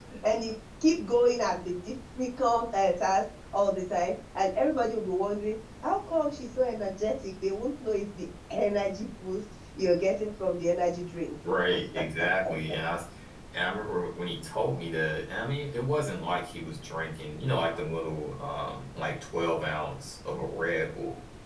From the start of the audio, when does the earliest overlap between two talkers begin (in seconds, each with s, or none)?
none